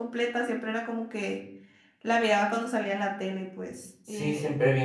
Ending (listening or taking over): taking over